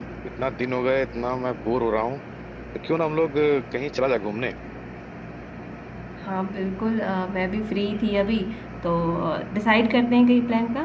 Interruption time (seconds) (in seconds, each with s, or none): none